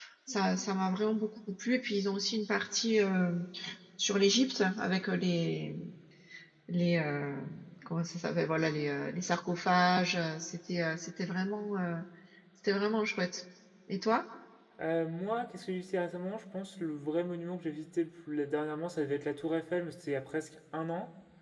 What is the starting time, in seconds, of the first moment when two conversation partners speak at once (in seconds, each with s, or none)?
none